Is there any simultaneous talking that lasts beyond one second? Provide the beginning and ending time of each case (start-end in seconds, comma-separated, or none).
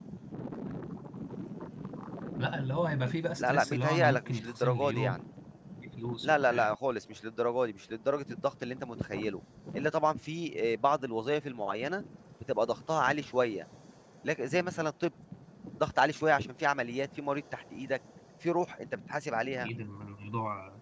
3.4-5.2